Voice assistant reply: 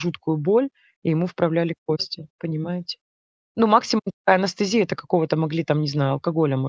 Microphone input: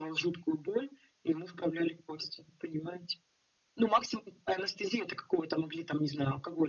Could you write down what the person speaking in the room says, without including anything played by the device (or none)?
none